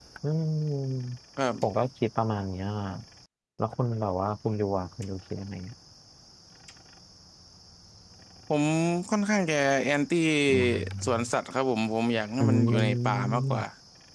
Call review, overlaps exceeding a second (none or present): present